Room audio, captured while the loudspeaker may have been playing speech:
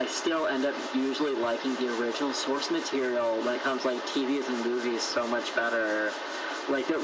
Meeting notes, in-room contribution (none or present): none